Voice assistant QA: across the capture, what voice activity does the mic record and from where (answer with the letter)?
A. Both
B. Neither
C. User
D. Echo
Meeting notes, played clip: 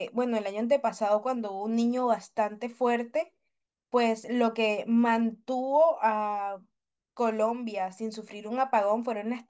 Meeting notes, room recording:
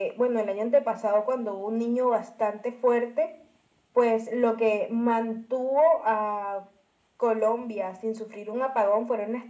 D